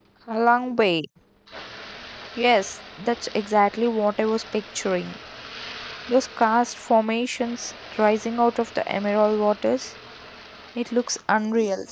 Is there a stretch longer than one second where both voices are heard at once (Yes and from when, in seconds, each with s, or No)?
No